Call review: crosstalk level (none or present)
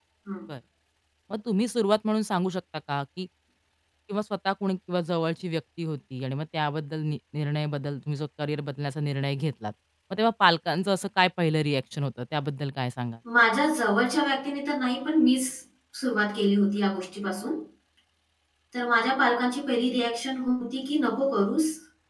none